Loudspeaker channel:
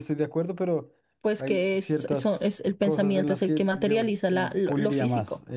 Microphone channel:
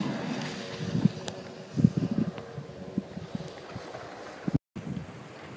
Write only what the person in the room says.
none

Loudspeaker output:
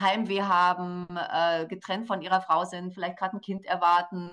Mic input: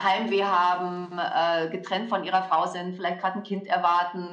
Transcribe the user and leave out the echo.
none

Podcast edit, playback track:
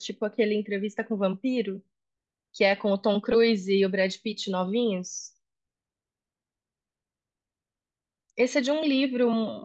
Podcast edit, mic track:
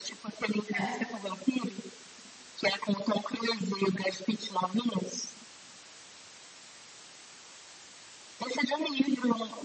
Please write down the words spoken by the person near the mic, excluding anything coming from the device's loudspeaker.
É.

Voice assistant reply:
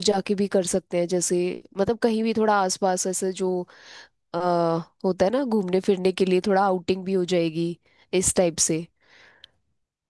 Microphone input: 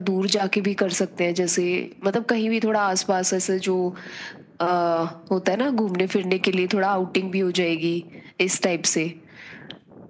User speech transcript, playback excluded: none

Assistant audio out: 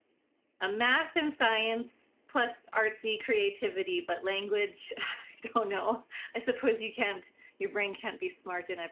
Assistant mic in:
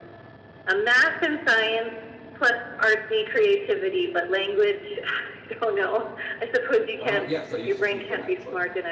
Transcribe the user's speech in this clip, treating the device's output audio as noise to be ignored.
Uh, yes, I used to teach it actually.

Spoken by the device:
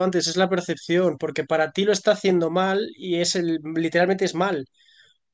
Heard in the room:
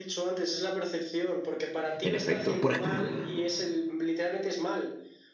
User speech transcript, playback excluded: en efecto. Por ejemplo,

